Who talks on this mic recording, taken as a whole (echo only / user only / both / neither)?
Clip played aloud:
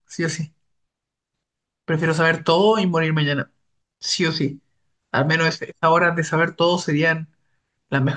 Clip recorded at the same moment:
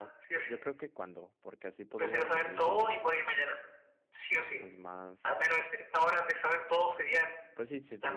both